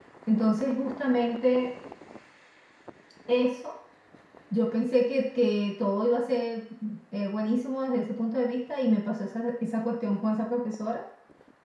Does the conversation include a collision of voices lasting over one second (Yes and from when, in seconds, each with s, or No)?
No